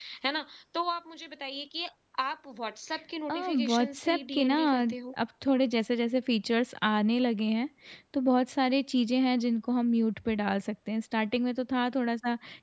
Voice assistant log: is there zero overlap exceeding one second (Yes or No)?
No